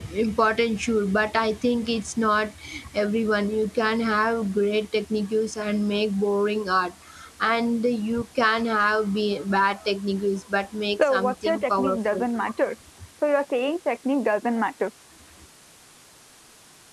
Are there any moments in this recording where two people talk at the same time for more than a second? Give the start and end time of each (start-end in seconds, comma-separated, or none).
11.0-12.2